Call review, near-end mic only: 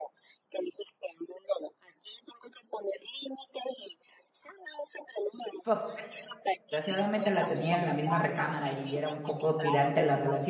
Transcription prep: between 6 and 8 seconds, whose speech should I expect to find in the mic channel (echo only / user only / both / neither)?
both